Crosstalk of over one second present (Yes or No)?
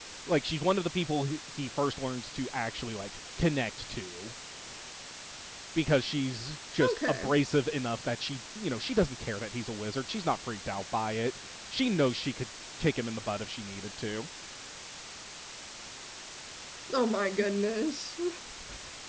No